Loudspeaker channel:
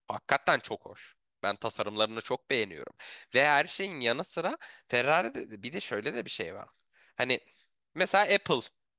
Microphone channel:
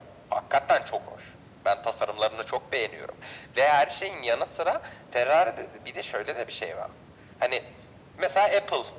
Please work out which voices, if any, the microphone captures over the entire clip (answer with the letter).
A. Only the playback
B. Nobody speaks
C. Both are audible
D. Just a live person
A